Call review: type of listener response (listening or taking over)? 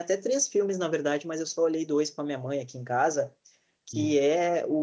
listening